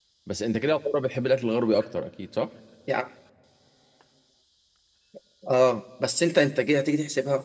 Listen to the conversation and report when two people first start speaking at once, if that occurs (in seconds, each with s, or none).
none